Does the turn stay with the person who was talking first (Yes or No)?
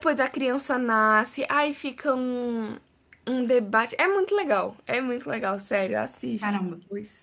No